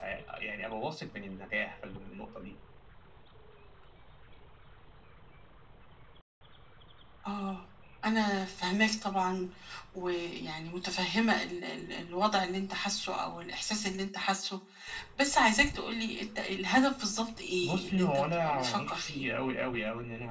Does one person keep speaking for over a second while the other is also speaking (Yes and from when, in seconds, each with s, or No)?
Yes, from 17.6 s